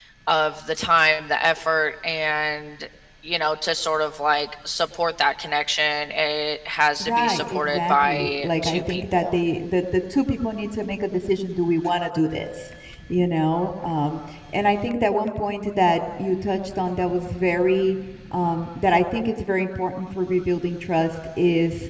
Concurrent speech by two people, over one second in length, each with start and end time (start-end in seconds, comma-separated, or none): 7.0-9.4